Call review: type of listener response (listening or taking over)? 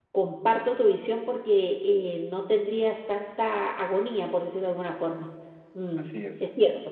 listening